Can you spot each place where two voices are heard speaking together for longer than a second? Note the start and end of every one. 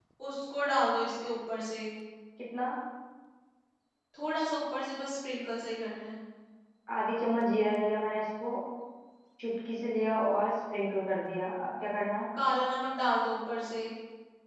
none

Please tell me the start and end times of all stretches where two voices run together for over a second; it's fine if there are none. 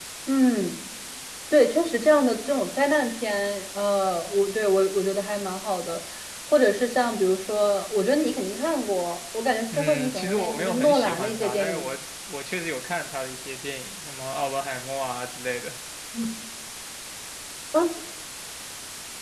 9.7-11.8

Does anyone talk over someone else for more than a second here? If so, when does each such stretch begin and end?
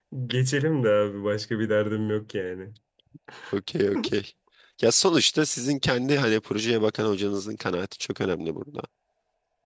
none

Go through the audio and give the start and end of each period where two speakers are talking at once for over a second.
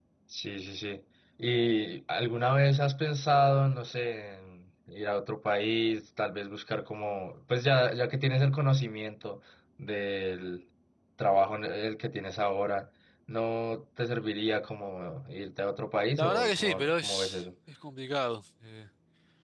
16.2-17.4

